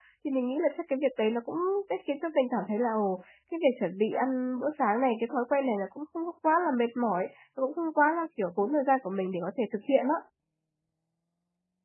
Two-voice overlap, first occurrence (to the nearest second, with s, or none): none